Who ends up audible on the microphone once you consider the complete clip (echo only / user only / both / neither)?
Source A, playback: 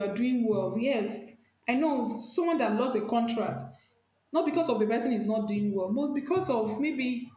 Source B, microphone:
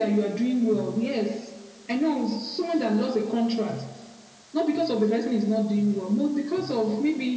echo only